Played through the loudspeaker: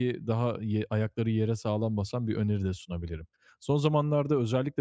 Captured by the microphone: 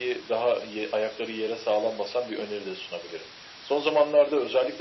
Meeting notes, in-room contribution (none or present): none